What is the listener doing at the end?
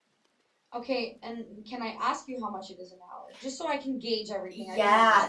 taking over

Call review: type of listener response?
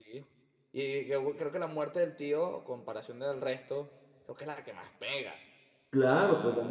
taking over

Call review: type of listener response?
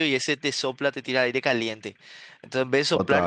listening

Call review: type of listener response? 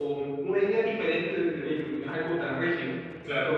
listening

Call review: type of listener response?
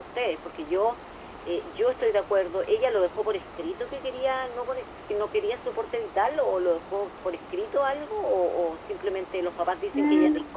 taking over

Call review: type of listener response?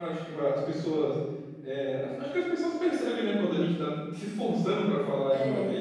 listening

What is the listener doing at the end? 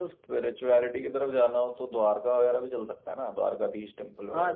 taking over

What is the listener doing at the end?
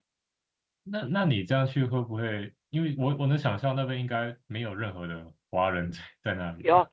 taking over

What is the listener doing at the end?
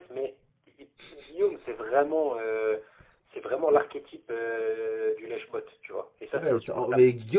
taking over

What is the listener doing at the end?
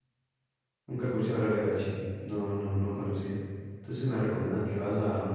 listening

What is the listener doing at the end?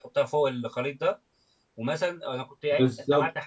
listening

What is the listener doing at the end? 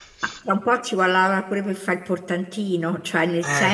listening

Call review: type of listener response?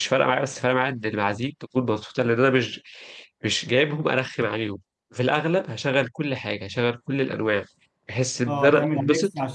taking over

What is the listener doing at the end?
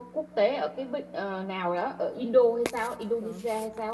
taking over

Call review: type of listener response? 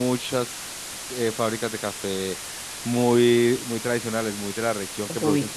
listening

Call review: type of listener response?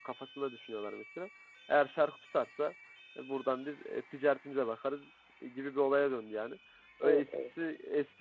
listening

